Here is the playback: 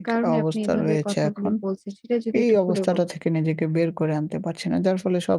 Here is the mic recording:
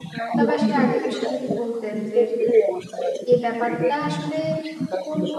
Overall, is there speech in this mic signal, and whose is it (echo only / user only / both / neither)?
both